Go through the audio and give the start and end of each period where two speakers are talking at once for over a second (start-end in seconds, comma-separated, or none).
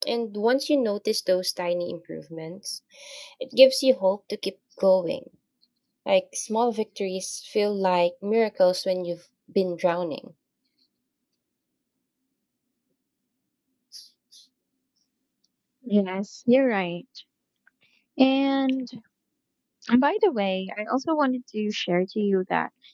none